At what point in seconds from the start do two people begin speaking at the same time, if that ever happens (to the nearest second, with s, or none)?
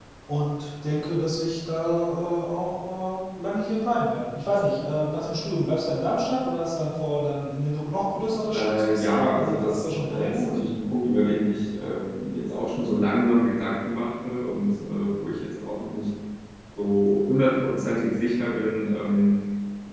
9 s